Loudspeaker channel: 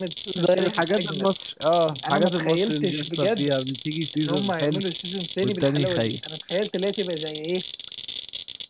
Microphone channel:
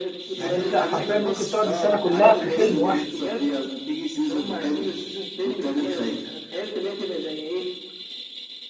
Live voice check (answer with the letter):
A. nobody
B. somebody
B